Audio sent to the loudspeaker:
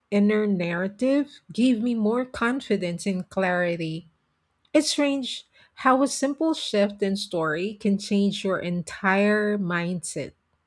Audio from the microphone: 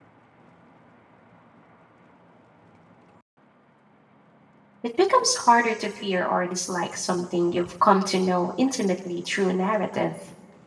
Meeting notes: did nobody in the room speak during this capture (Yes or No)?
No